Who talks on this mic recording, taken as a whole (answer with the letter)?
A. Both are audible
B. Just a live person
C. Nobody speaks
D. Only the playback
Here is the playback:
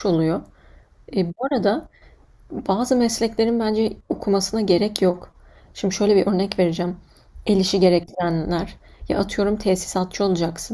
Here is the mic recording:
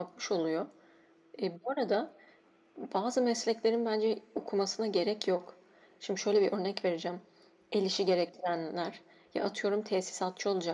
D